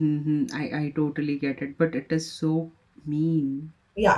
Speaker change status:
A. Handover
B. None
A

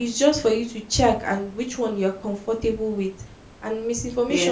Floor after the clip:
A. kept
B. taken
A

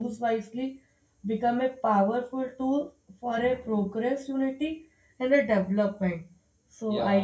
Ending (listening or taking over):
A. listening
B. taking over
A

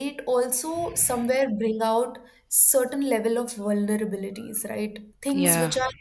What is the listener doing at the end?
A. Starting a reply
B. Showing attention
B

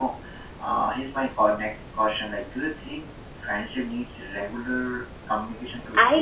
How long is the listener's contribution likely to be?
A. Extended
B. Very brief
A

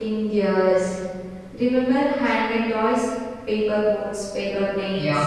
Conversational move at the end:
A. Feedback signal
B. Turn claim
B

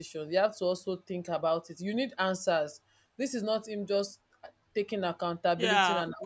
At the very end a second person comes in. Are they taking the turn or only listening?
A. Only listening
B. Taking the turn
B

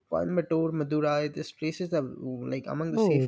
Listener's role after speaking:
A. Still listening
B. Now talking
B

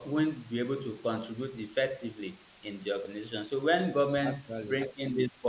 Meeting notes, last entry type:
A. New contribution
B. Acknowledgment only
B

